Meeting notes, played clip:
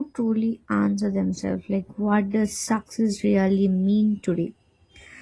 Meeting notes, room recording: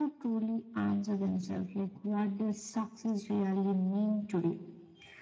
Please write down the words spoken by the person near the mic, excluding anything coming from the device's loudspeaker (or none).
none